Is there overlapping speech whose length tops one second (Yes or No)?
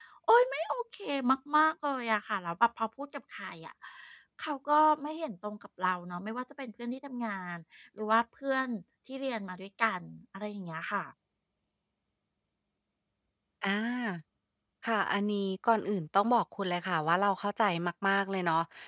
No